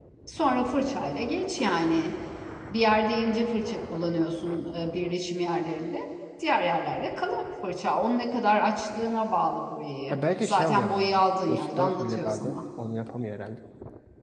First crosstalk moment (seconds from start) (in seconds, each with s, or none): 10.1 s